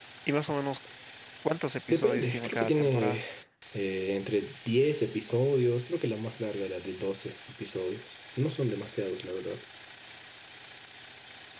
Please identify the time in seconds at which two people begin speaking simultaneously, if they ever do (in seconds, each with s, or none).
1.9 s